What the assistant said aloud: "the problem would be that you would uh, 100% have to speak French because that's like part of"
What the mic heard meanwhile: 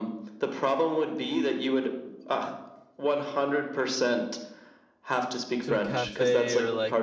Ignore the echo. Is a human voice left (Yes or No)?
Yes